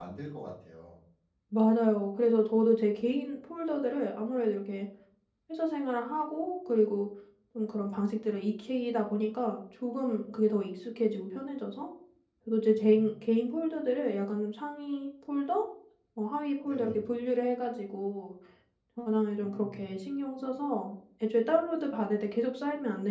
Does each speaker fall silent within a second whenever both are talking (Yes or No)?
Yes